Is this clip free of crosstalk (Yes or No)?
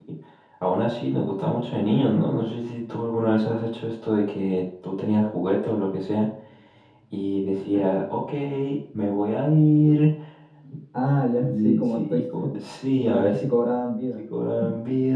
No